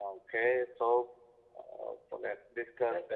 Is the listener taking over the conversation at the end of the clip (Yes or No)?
Yes